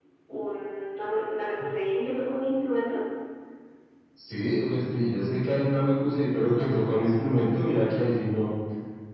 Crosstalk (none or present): none